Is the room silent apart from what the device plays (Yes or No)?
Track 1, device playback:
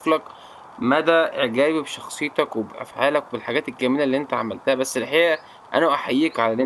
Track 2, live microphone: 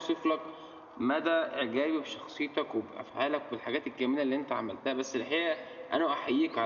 Yes